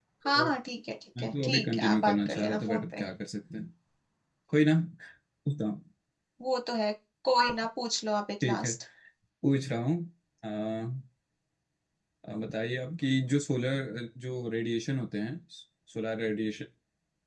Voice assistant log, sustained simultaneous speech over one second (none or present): present